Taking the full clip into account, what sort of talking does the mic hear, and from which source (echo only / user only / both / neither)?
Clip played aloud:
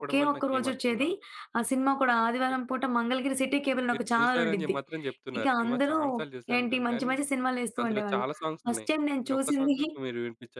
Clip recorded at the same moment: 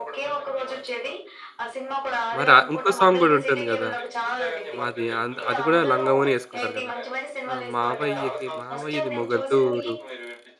both